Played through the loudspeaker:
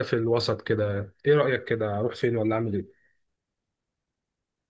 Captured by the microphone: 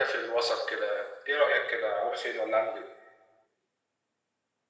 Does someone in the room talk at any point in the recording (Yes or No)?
No